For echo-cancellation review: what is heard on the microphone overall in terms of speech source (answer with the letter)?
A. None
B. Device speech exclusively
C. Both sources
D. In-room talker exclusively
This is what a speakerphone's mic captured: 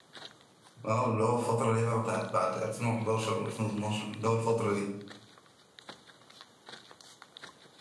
D